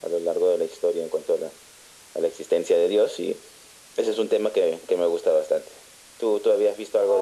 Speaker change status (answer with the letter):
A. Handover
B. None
A